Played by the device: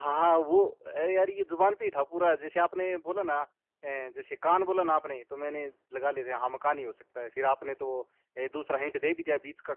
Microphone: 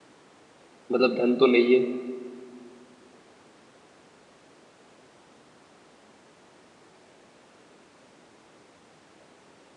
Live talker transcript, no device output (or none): मतलब धन तो नहीं है